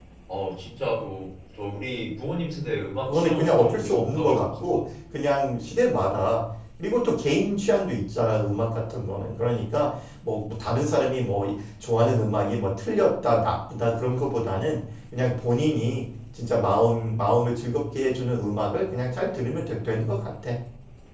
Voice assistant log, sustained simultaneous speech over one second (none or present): present